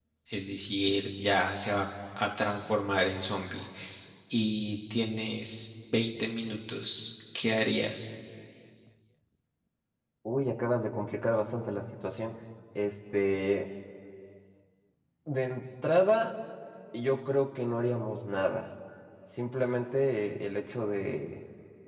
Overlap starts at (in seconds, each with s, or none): none